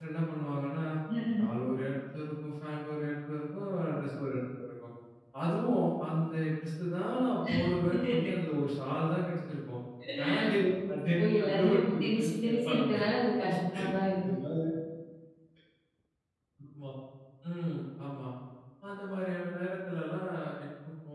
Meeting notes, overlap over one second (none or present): present